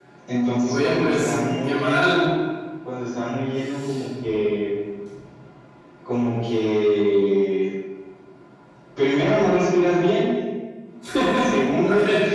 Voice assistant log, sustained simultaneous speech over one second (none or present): present